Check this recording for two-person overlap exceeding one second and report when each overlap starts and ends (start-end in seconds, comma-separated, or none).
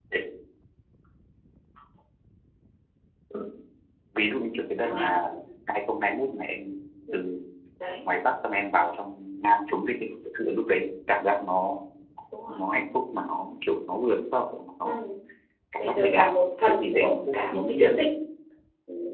15.8-17.9